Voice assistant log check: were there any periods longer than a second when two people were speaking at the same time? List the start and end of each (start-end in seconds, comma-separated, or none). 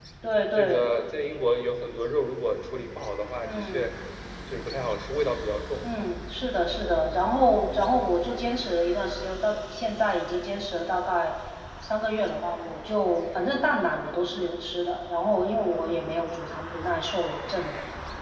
none